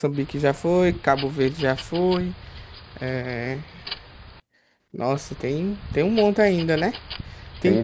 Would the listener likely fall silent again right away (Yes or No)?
No